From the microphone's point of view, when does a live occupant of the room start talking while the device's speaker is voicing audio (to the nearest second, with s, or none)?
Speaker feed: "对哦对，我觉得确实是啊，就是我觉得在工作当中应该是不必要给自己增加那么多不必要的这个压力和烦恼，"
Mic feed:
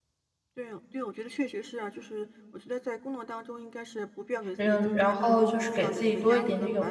5 s